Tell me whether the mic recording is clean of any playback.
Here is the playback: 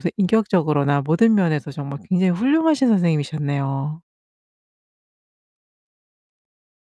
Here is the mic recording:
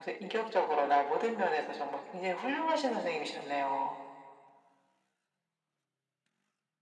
No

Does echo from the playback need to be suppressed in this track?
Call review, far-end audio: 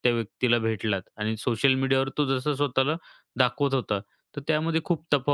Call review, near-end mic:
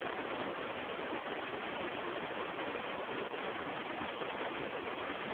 No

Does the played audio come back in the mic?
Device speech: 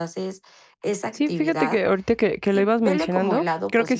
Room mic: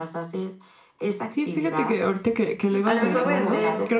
Yes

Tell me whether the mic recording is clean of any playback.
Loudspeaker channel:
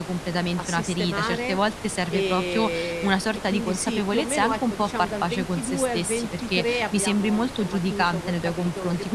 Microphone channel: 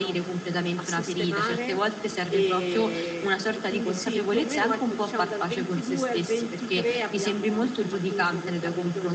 No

